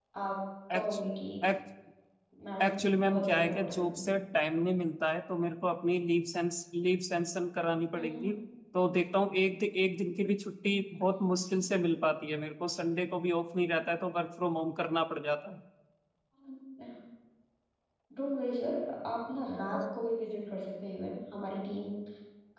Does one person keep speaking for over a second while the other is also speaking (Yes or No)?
Yes